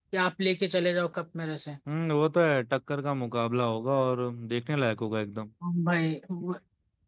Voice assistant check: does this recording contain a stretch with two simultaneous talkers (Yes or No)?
No